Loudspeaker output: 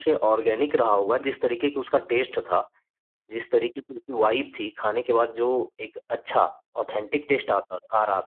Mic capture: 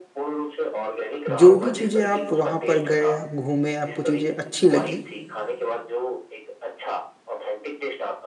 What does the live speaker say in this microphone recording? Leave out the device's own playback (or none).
जो भी चीज़ें आप वहाँ पर गए, आप घूमे, आपको चीज़ें अच्छी लगी,